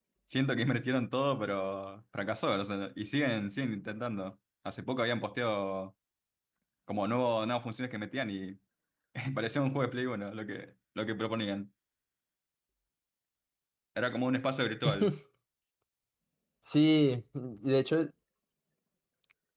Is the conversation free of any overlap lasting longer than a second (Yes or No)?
Yes